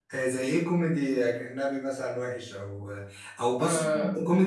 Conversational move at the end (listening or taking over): listening